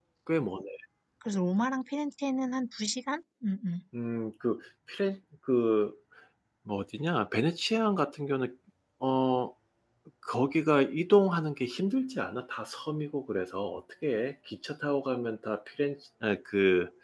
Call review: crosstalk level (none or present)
none